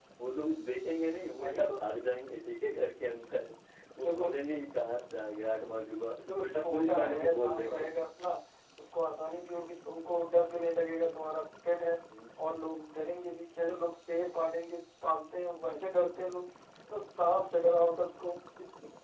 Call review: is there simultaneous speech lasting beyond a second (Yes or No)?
Yes